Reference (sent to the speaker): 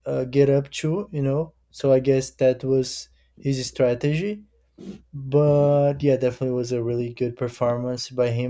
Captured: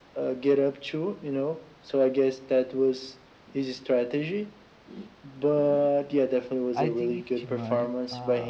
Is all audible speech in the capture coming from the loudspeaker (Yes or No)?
No